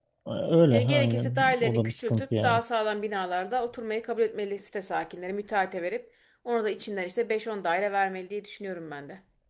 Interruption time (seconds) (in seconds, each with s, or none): 0.7 s